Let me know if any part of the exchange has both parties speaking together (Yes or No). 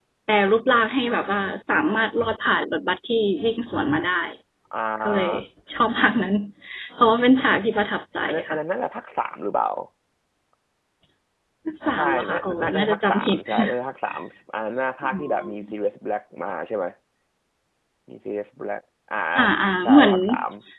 Yes